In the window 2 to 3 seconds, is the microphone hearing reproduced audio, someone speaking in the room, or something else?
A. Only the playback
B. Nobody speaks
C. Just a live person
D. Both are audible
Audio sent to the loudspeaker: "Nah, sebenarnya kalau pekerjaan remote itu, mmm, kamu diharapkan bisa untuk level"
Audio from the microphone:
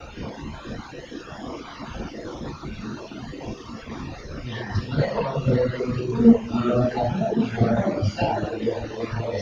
B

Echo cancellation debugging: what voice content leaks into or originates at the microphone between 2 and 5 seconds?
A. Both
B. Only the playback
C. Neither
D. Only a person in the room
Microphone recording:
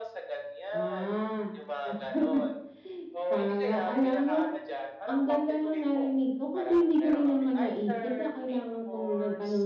A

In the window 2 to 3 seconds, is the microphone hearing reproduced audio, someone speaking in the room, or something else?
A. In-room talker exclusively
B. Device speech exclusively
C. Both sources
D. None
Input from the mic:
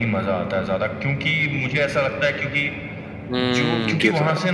B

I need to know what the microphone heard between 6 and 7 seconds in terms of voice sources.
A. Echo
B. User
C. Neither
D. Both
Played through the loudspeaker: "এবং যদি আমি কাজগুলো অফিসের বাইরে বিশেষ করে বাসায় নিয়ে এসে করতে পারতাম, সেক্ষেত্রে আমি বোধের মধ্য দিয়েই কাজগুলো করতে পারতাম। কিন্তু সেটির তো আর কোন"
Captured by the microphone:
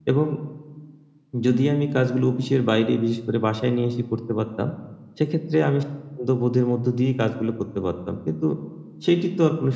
A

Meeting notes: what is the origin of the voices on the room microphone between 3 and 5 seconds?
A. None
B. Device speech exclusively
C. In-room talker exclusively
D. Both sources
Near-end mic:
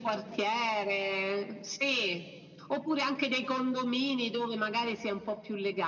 B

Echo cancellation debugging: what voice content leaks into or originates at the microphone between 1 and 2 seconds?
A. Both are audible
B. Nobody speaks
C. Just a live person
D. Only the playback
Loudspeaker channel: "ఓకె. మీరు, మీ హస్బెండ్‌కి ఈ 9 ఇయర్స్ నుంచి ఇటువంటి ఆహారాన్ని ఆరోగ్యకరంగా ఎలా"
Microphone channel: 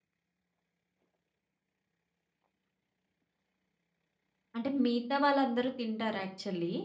B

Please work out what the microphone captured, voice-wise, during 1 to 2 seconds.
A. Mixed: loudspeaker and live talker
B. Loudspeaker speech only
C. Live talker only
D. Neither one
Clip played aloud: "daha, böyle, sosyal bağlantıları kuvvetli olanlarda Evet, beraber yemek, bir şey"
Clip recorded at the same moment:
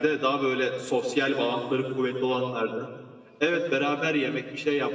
B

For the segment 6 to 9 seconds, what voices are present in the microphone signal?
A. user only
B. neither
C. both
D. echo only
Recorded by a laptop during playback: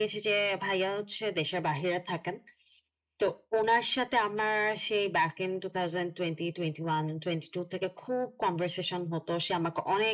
D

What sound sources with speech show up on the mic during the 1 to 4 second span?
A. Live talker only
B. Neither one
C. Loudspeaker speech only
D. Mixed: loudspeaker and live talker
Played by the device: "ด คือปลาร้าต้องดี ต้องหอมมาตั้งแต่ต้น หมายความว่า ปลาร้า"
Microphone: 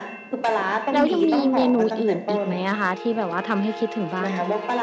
D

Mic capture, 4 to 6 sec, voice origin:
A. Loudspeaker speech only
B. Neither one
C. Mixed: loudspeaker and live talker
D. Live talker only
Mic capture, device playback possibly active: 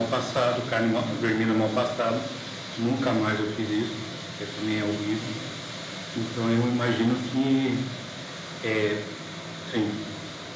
A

